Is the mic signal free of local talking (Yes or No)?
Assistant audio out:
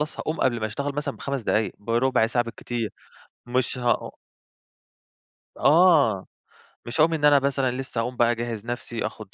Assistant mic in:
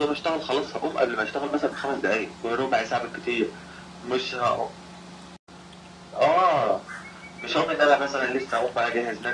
Yes